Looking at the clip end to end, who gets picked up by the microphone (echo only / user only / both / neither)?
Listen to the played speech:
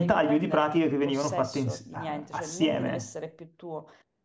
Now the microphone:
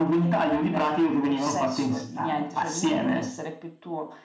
echo only